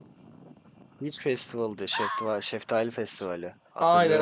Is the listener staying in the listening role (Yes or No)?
No